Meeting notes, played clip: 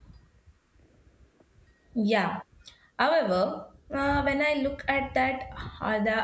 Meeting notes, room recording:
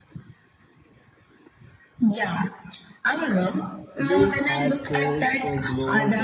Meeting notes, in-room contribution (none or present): present